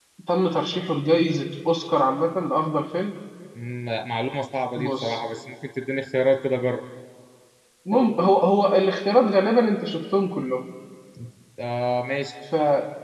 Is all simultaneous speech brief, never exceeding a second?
Yes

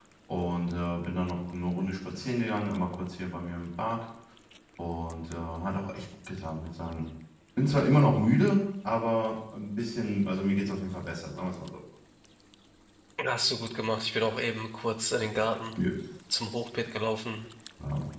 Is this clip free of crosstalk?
Yes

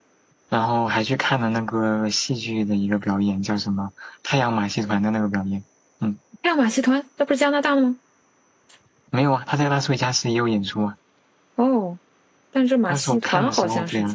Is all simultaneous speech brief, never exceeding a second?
No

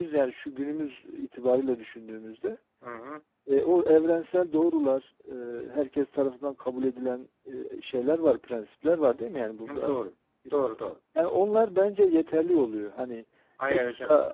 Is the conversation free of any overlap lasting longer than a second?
Yes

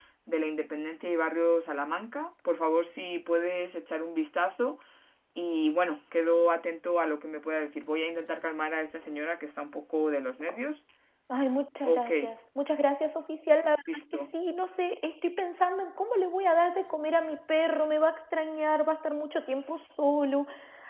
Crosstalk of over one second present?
No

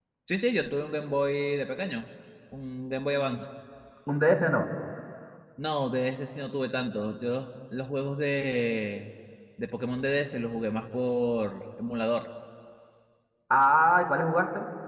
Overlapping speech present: No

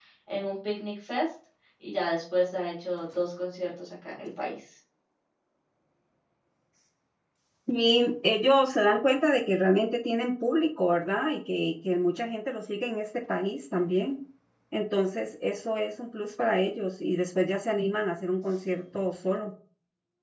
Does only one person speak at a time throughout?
Yes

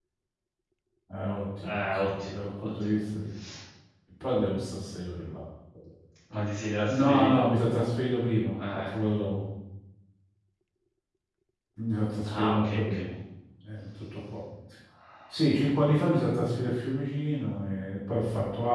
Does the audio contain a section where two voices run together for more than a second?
Yes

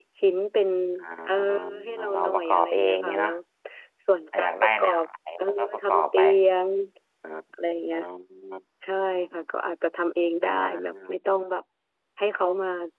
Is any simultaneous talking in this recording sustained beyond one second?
Yes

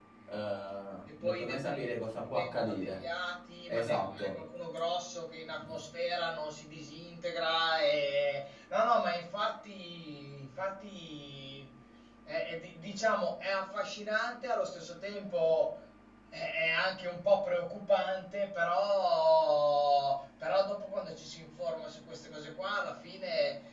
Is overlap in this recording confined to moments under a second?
No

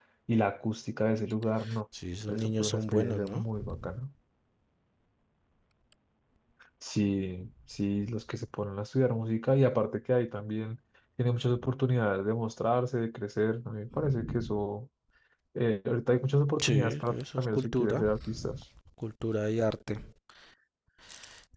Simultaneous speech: Yes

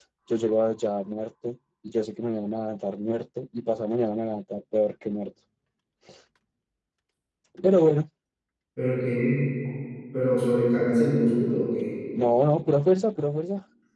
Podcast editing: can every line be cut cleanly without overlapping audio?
Yes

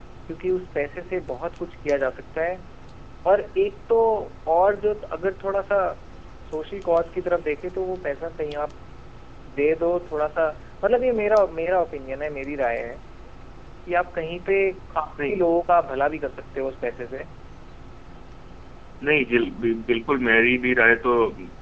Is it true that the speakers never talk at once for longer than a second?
Yes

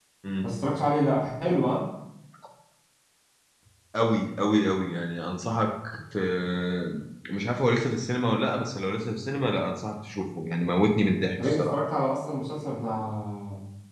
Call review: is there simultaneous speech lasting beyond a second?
No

